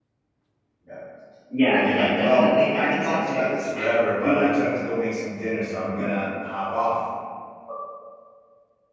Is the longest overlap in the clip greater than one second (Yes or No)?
Yes